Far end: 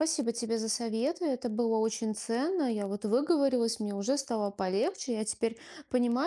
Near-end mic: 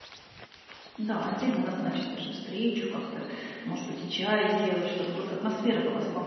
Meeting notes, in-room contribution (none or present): present